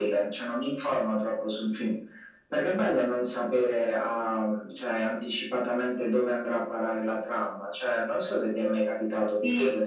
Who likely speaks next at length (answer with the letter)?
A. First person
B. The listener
B